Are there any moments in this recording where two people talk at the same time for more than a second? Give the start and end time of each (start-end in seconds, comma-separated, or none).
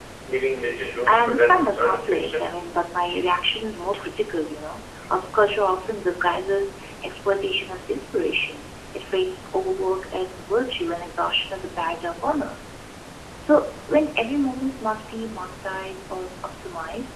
1.0-2.5